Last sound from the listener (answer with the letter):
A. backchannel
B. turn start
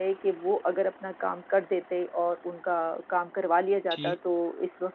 A